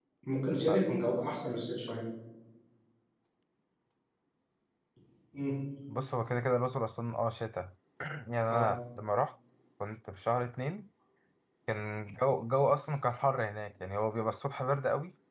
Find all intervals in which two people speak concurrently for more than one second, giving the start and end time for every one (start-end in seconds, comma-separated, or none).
none